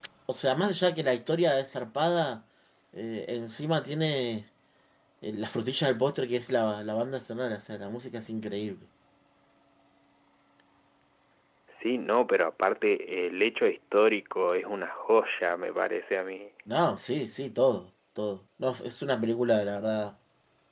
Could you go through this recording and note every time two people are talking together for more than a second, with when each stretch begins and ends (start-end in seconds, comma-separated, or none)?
none